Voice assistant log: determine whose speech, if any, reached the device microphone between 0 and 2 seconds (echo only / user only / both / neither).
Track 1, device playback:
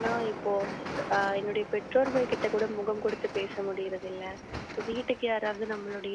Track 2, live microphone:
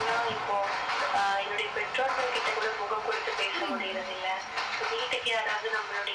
echo only